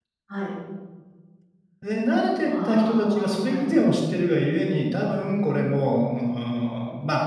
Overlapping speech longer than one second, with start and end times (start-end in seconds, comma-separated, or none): 2.4-3.6